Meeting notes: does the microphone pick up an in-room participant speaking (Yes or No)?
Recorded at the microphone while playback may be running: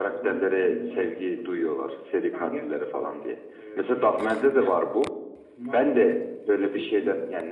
No